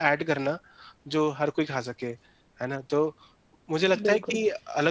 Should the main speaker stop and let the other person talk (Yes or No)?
No